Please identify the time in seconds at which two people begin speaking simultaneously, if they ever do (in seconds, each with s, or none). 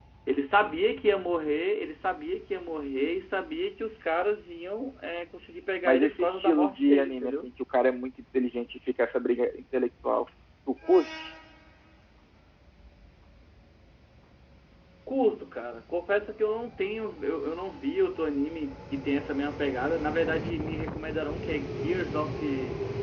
5.8 s